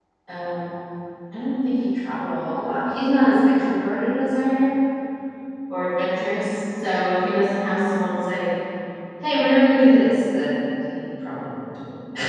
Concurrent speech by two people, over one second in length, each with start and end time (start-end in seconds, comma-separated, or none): none